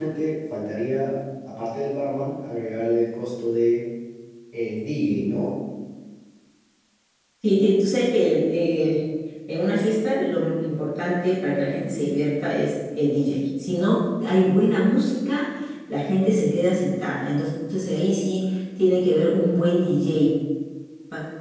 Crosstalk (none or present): none